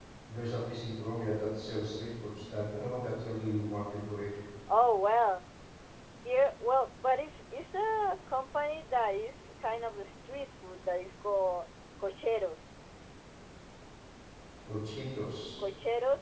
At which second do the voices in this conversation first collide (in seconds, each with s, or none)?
none